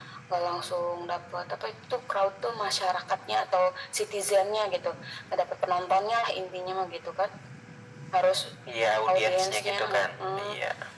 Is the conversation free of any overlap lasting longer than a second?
No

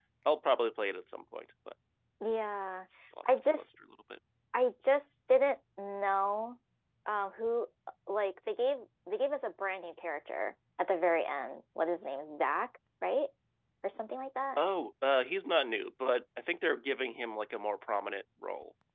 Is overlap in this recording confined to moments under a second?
Yes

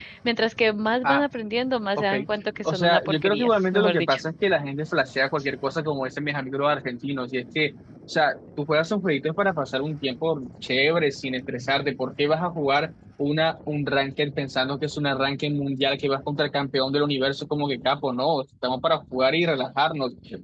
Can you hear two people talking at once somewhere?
Yes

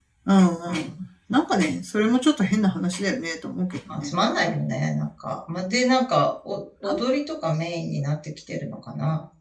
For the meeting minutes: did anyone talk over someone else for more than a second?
No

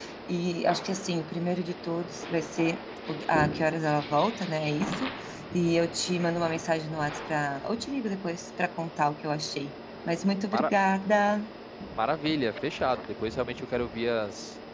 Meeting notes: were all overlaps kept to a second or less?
Yes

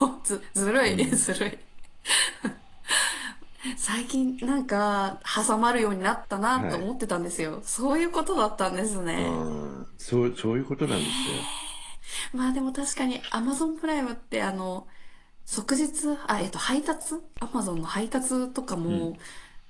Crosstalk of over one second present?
No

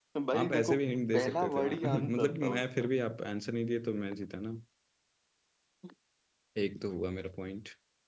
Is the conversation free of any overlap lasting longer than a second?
No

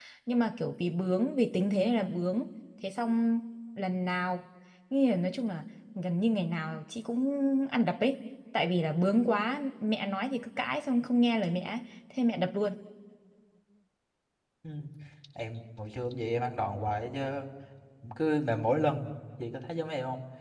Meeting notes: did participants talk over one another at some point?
No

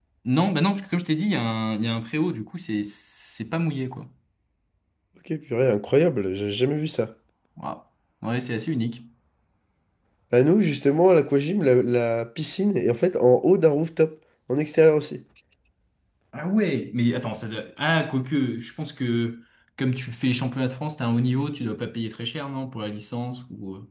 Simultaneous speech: No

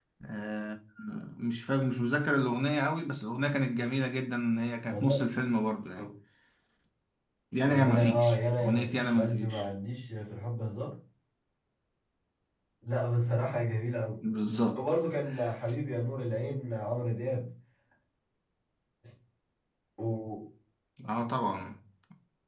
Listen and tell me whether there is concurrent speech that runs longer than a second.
Yes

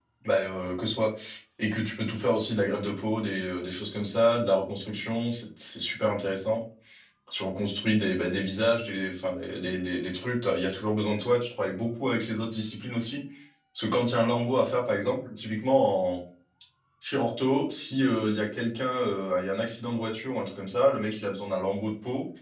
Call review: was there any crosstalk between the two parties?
No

